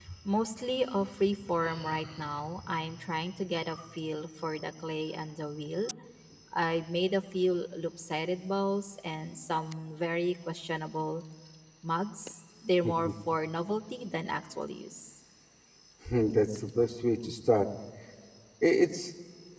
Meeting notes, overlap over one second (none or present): none